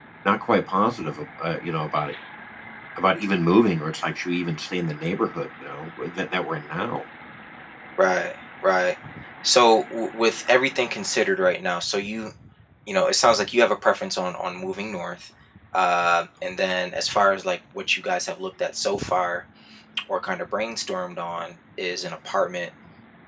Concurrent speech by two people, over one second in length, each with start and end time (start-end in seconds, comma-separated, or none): none